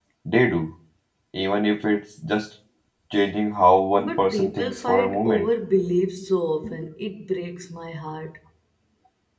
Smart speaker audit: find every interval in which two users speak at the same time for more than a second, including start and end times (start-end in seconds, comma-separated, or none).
4.0-5.5